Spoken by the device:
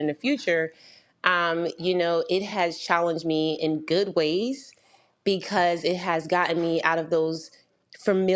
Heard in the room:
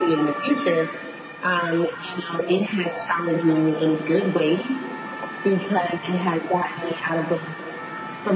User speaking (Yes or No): No